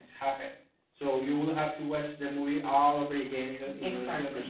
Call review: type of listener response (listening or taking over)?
taking over